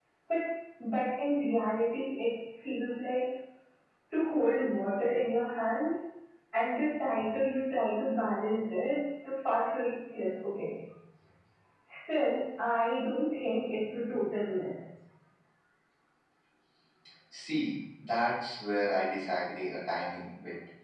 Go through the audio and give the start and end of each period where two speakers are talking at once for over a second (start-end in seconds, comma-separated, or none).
none